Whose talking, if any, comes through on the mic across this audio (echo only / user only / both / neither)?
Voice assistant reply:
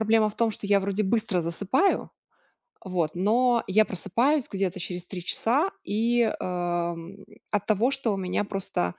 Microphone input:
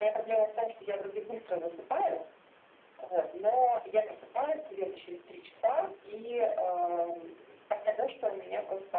echo only